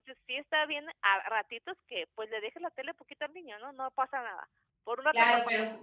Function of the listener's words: taking over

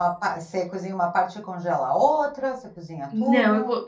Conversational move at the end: taking over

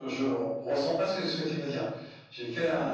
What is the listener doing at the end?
listening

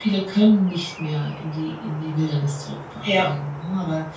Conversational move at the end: listening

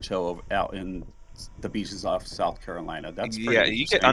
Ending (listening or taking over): taking over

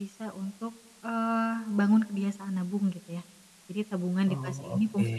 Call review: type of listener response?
listening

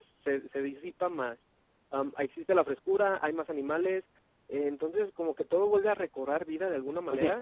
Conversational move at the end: taking over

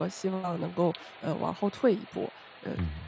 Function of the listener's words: taking over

